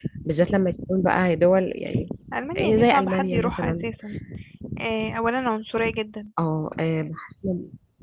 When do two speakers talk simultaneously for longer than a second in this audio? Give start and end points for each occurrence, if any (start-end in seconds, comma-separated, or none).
2.6-3.8